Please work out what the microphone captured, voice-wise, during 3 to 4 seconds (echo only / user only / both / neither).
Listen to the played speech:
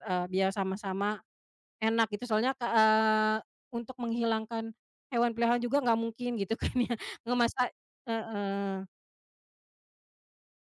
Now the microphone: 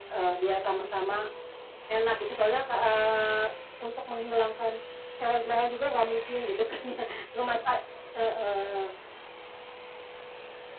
echo only